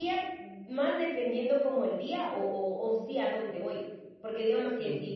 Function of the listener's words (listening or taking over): listening